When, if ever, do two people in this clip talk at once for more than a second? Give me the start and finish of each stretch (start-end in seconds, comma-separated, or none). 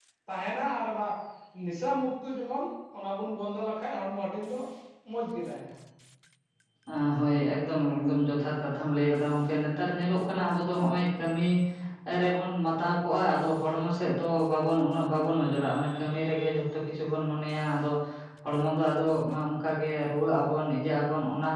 none